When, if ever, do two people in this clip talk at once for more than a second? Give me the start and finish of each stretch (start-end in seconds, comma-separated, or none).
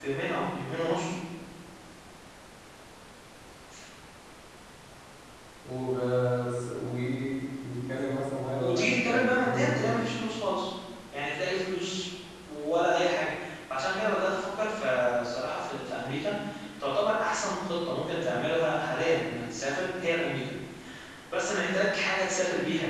8.6-10.0